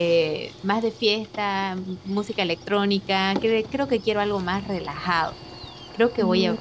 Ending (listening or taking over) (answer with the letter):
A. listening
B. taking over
A